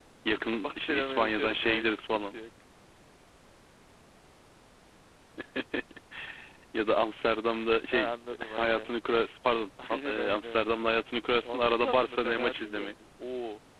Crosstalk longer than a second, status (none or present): present